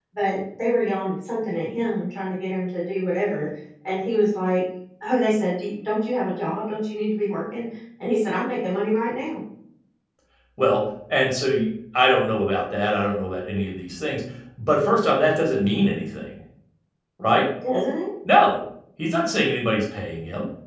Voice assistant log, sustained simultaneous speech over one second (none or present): none